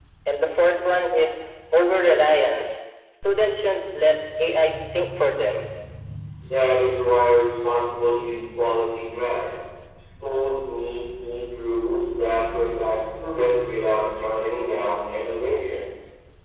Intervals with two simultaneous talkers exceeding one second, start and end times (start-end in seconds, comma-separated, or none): none